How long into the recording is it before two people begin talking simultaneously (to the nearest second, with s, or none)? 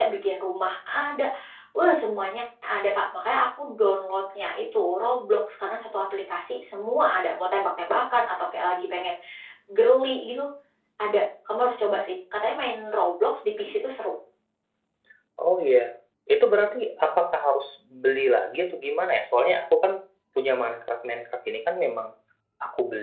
none